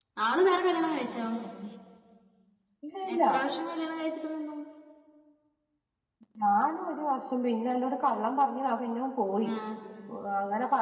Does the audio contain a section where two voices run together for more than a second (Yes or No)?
No